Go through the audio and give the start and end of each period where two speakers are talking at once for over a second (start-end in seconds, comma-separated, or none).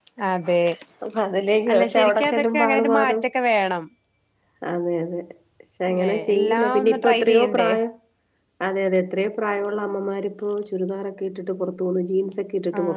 1.7-3.2, 5.9-7.7